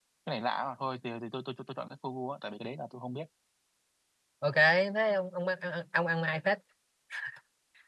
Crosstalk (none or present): none